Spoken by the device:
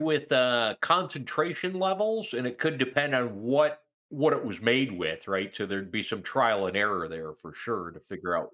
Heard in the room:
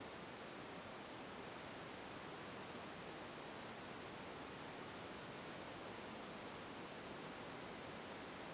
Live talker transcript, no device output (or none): none